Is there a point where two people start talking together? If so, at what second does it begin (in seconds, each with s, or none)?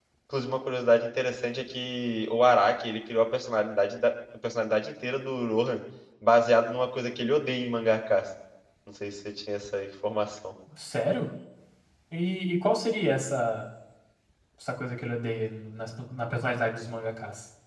none